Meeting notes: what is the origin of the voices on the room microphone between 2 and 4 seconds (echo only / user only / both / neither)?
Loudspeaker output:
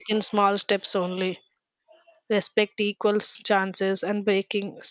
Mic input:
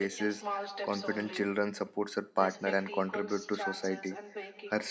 both